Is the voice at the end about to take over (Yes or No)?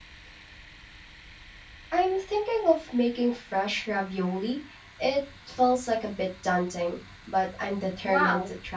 Yes